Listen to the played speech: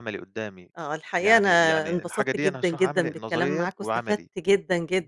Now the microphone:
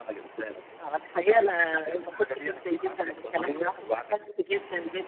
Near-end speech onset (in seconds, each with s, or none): none